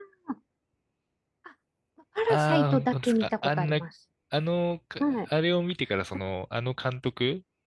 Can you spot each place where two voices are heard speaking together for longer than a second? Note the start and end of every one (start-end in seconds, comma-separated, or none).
2.3-3.8